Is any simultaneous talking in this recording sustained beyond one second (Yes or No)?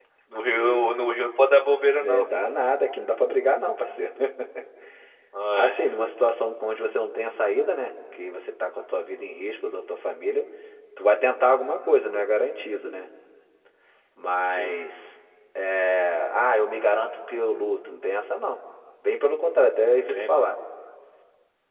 No